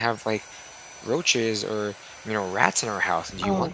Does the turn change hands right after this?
Yes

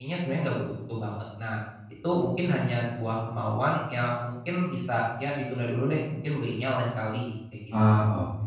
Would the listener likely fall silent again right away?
No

